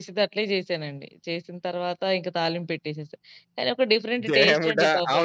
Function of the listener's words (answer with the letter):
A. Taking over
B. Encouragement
A